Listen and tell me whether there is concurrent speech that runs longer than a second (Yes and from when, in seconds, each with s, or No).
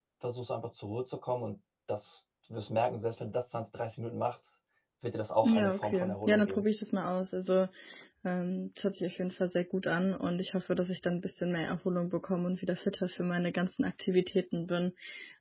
Yes, from 5.4 s